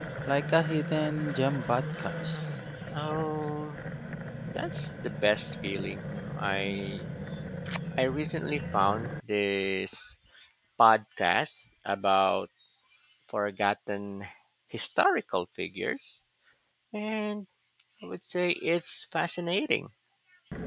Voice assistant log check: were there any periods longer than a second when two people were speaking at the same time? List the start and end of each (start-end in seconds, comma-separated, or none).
none